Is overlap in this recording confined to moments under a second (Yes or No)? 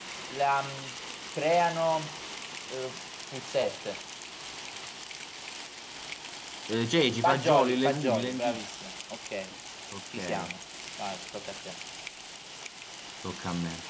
No